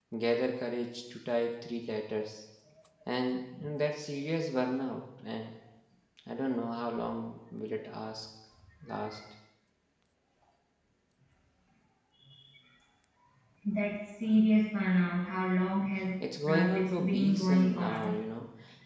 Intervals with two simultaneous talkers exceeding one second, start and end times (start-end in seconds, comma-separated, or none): 16.5-18.2